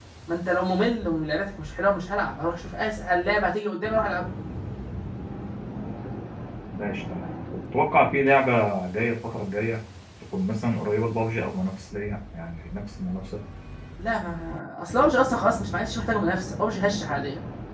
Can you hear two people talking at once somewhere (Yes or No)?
No